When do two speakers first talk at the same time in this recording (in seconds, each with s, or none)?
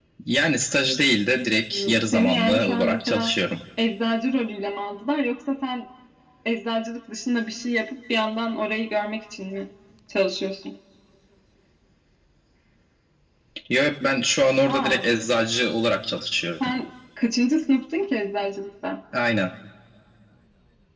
1.7 s